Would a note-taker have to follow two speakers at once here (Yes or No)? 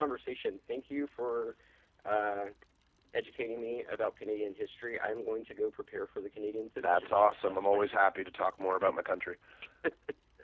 Yes